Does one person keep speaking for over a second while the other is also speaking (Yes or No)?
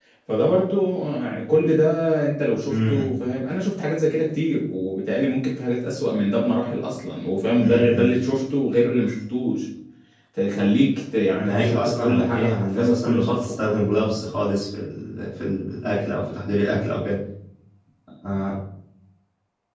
Yes